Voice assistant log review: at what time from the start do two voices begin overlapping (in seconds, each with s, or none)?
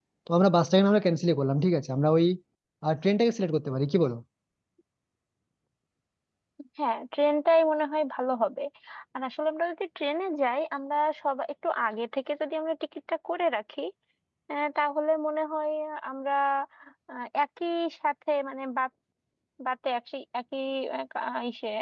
none